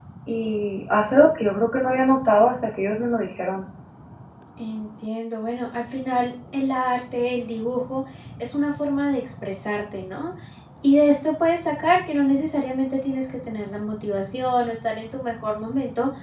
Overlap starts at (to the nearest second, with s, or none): none